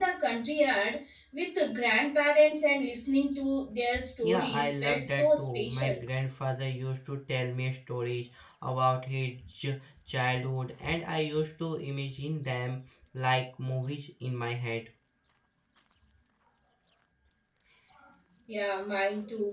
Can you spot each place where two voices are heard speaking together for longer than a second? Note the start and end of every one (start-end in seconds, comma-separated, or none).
4.2-6.0